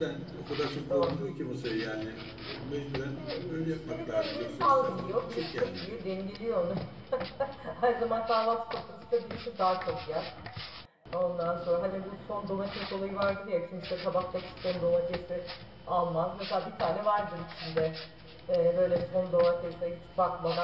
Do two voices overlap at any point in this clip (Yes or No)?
Yes